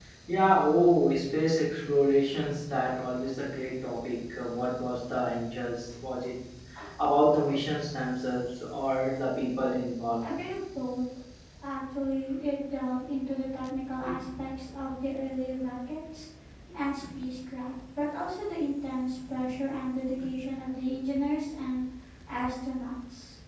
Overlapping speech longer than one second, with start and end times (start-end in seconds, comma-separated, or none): none